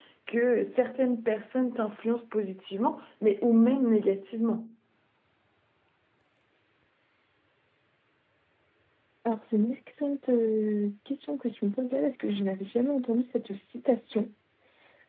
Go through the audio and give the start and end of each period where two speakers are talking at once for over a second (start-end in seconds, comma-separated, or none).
none